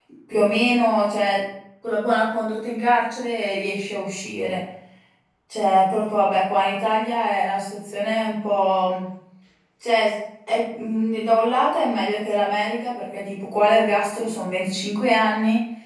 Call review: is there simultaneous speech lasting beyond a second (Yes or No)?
No